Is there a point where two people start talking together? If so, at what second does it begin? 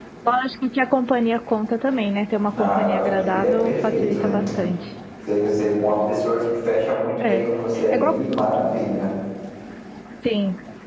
2.6 s

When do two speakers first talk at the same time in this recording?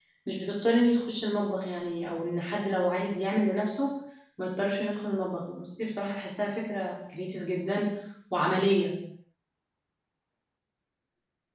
none

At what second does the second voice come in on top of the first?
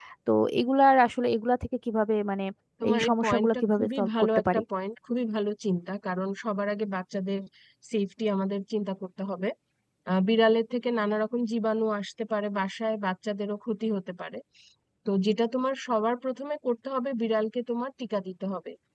2.9 s

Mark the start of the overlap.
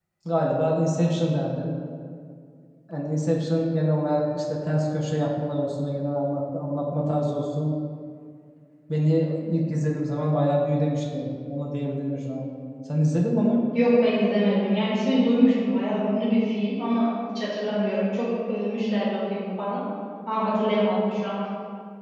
none

